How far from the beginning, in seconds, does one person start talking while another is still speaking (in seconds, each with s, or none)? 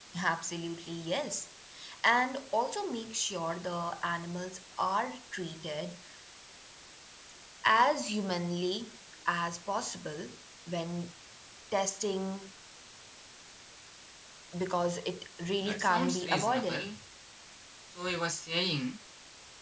15.7 s